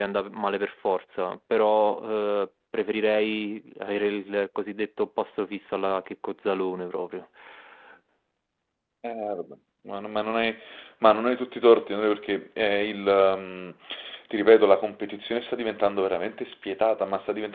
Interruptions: none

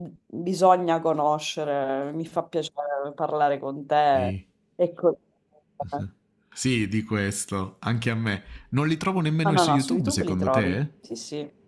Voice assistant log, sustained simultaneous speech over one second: present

